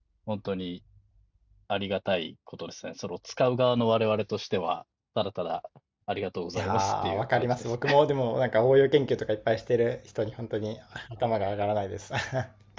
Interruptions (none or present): present